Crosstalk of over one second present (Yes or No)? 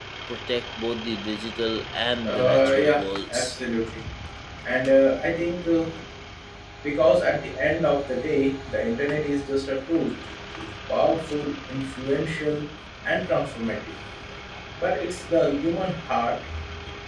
Yes